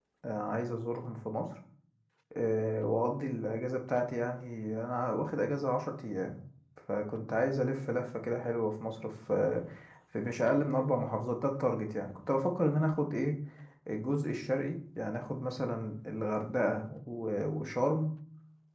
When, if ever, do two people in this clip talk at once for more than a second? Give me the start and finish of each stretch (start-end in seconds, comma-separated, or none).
none